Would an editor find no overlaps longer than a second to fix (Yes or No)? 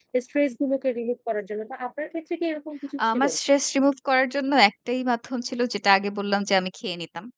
Yes